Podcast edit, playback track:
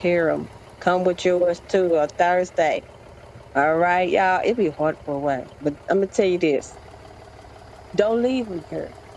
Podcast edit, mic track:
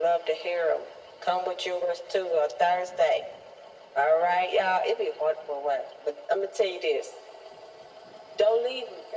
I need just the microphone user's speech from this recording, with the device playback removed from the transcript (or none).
none